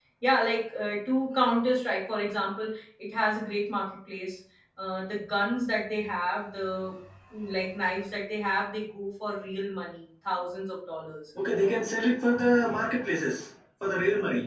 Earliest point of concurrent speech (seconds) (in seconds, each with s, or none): none